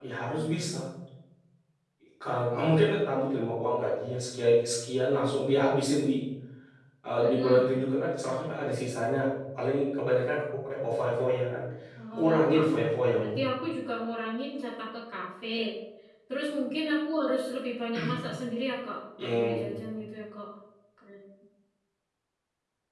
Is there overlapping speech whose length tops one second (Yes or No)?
No